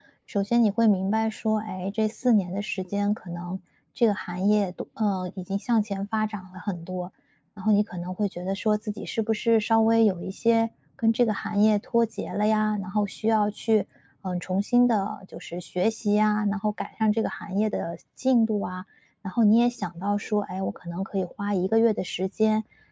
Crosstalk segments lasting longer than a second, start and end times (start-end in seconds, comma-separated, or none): none